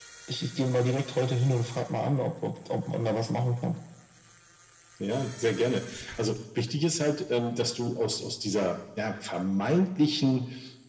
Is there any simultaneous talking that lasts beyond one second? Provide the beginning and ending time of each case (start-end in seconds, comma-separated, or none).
none